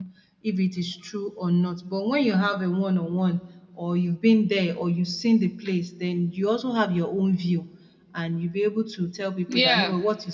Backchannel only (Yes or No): Yes